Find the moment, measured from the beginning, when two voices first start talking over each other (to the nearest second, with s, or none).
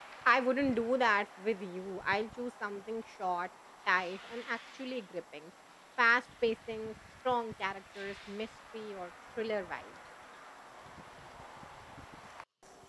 none